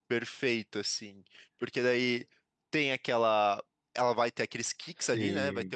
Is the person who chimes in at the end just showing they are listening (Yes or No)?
Yes